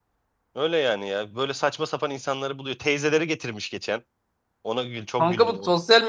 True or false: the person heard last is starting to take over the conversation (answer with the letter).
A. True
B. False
A